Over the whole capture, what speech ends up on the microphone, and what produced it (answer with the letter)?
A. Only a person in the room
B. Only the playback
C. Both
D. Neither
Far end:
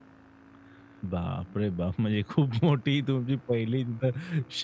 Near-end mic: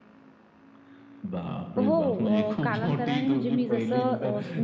C